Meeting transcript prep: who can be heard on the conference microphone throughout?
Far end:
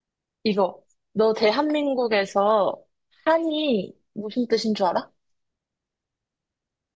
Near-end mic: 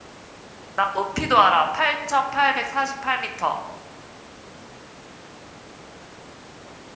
user only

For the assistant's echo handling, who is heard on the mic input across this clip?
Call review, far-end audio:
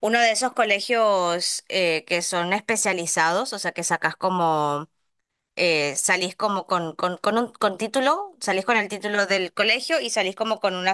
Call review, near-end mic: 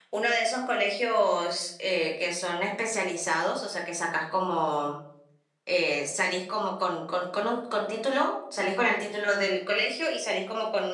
echo only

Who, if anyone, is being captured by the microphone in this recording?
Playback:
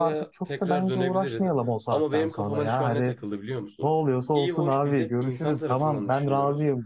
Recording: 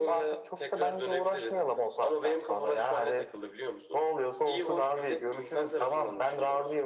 echo only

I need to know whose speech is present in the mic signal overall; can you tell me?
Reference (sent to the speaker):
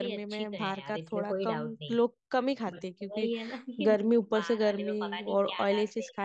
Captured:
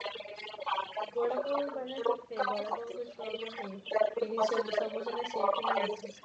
both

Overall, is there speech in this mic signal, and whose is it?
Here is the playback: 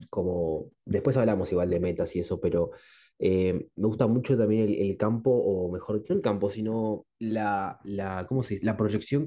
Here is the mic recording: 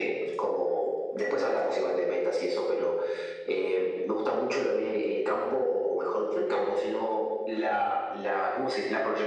echo only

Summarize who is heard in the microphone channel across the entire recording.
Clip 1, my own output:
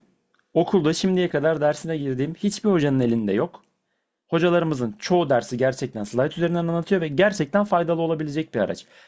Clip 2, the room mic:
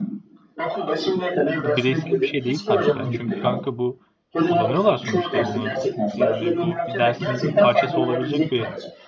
both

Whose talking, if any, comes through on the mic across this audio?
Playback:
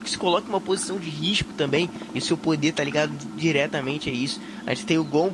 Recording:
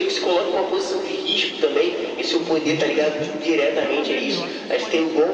both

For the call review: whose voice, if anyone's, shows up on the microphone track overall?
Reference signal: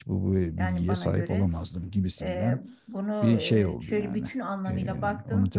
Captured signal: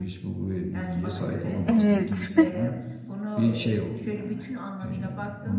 both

